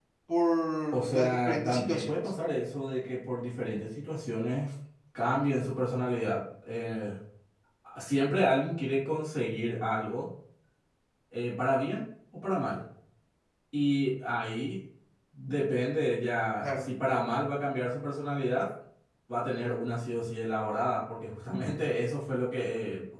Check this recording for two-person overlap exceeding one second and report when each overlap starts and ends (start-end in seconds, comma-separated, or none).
0.9-2.2